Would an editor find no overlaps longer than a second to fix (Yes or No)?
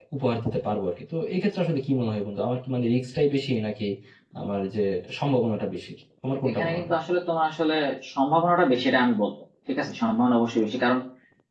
Yes